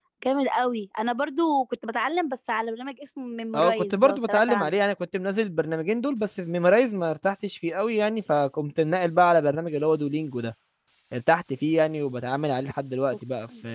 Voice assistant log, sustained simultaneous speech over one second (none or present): present